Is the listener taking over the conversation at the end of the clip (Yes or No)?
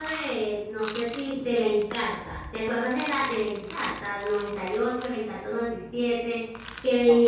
No